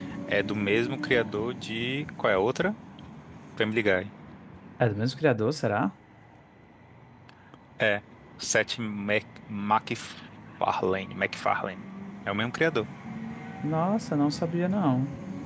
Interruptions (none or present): none